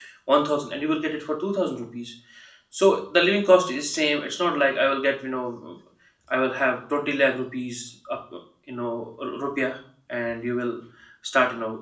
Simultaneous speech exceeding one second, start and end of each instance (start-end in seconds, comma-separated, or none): none